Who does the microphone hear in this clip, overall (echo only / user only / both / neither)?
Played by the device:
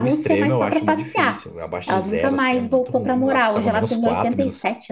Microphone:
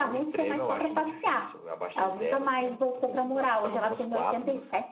echo only